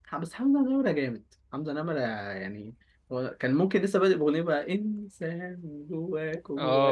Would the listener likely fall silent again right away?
No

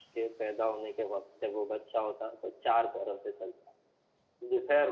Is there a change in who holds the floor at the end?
No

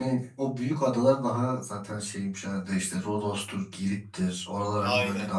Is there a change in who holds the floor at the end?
Yes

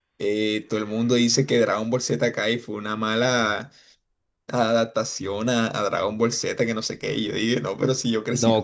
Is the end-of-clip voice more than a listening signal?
Yes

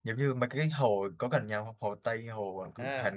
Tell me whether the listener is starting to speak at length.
Yes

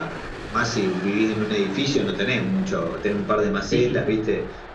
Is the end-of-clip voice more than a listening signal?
No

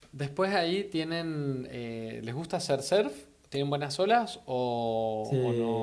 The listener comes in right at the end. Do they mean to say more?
Yes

